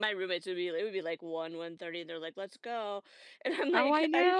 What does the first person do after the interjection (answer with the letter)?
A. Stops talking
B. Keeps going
A